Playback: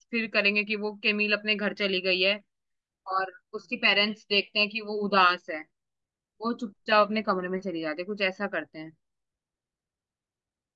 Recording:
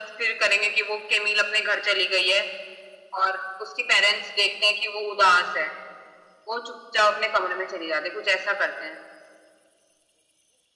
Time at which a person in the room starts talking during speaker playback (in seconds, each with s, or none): none